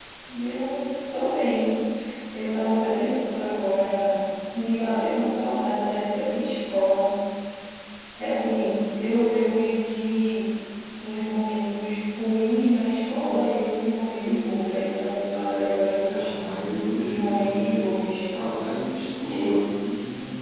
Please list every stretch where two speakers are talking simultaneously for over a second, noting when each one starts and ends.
none

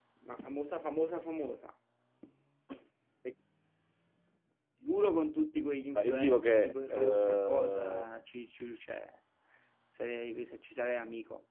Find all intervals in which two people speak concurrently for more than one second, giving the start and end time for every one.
6.0-8.1

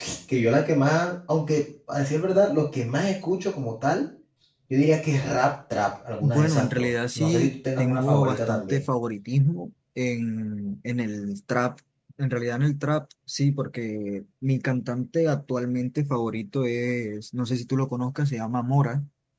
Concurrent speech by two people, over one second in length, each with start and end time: 6.2-8.8

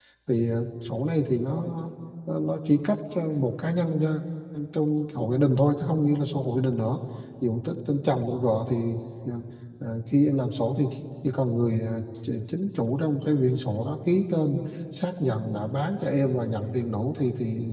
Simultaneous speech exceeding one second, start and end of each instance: none

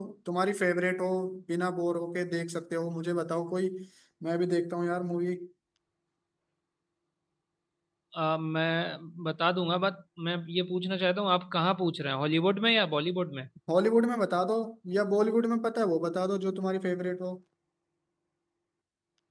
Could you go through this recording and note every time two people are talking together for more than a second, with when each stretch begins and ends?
none

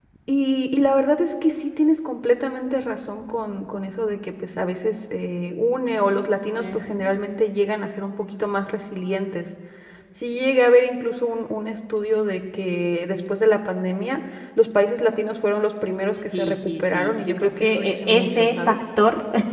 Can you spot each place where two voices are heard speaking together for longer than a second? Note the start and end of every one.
16.3-18.8

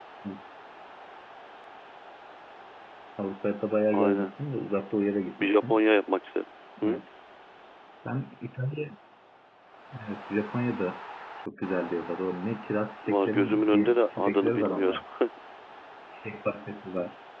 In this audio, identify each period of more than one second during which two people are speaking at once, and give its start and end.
13.0-15.0

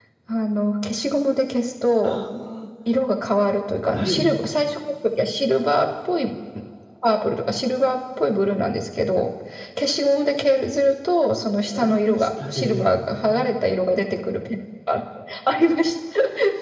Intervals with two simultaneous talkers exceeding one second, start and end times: 11.7-13.5

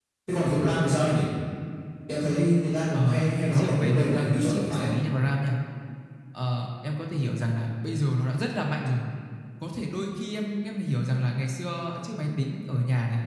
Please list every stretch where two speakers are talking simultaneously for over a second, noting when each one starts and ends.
2.9-4.9

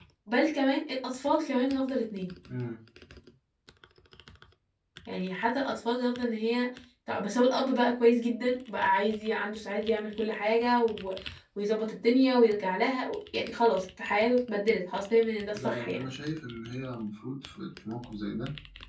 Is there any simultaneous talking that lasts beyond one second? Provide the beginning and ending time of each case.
none

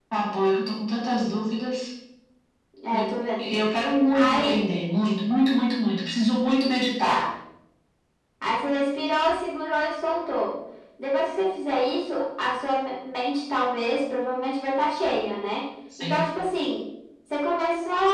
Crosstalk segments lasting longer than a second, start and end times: none

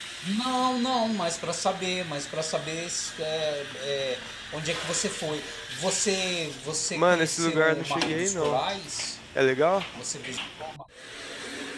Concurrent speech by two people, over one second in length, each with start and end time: 6.9-8.6

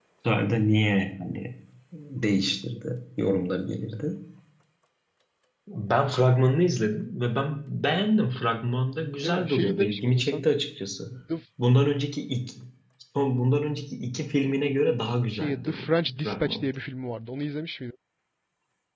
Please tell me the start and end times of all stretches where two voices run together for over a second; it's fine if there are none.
9.2-10.4, 15.3-16.6

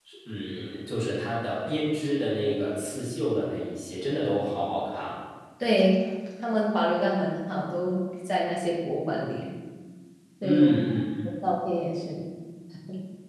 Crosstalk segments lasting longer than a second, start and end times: none

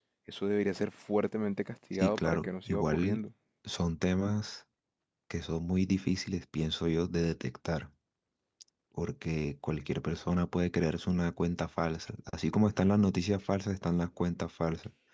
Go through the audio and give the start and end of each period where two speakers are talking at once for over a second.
1.9-3.2

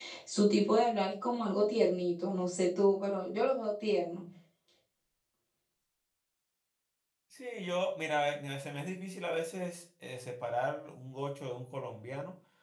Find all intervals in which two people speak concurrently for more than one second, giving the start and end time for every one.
none

